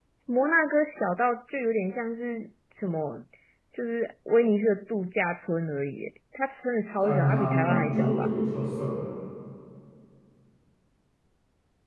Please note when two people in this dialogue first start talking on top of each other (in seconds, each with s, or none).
7.0 s